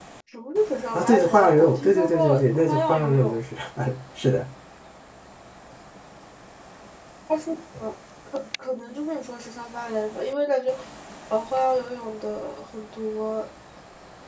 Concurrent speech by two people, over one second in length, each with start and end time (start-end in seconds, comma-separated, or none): 0.9-3.4